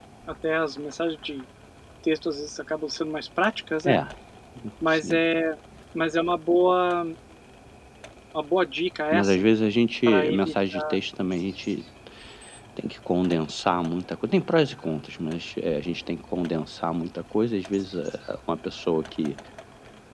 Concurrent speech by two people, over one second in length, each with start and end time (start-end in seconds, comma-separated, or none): none